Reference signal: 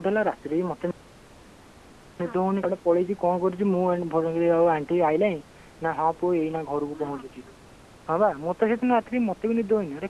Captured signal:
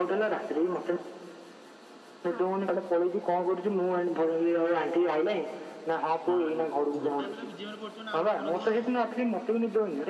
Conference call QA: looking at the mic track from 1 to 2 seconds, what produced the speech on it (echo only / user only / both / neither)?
echo only